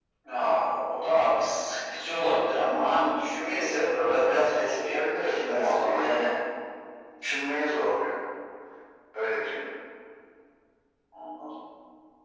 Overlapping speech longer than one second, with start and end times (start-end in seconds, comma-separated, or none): 4.9-6.3